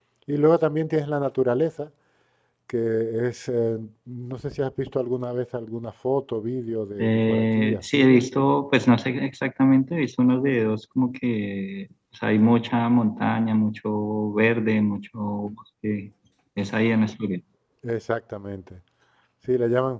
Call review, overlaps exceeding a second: present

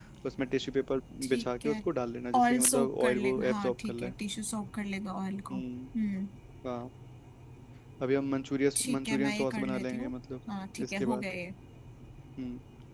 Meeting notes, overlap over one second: present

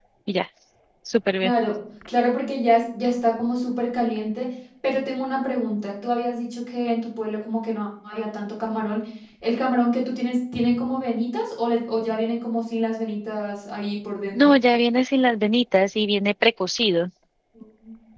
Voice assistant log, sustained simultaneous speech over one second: none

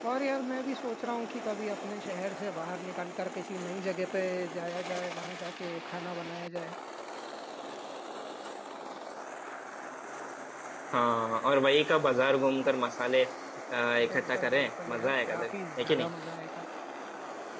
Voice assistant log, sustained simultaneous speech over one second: present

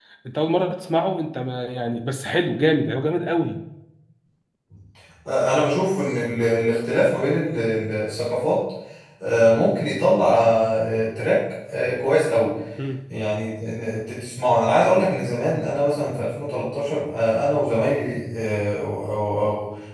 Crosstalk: none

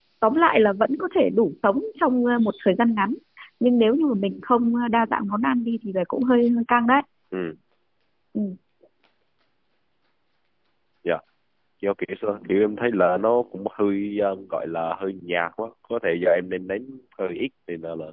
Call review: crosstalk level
none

